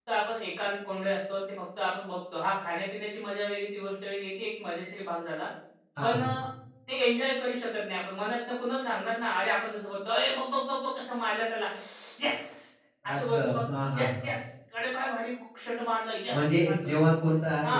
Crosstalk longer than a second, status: none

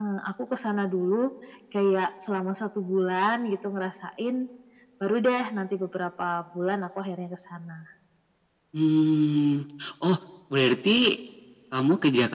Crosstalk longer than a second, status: none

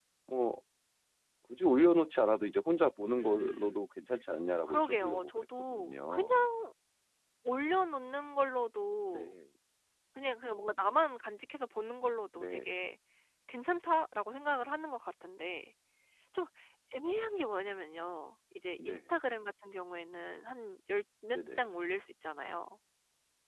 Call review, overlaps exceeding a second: present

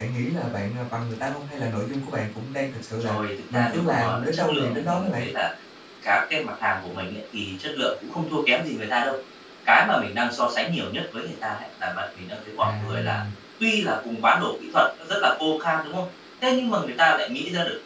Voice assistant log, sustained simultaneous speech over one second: present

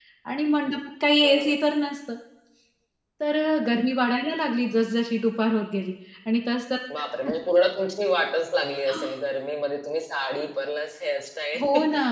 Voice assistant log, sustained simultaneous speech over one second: none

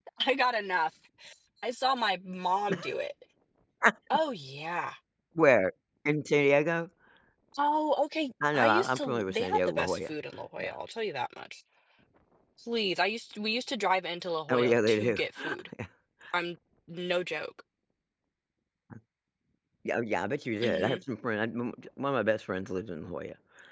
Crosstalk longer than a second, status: present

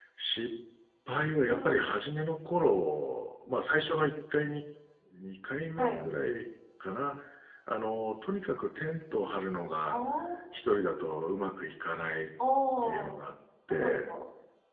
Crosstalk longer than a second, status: none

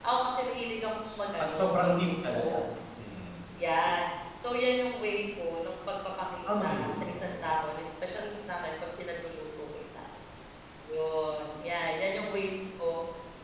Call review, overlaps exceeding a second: present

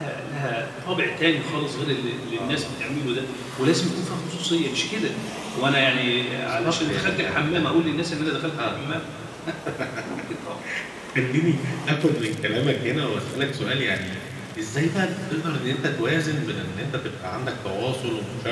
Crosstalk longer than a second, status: present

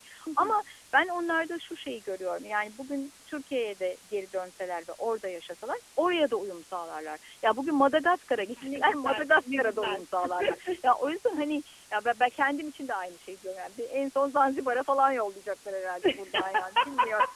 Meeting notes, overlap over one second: present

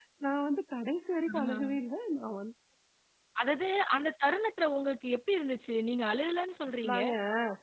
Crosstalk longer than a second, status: none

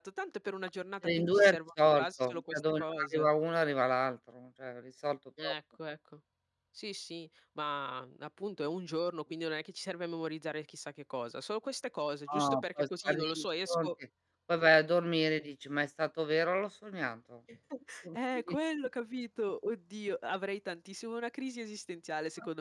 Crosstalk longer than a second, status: present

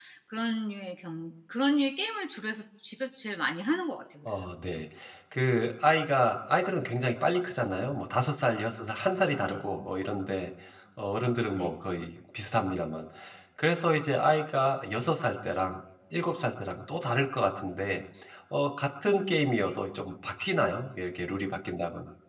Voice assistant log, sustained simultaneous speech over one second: none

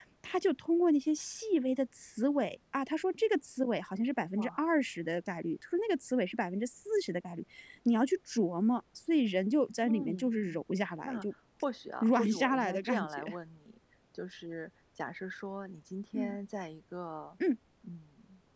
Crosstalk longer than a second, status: present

